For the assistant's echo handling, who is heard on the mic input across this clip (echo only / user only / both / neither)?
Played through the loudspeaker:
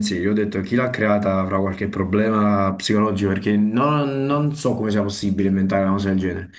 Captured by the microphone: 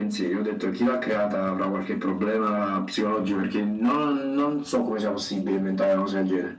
echo only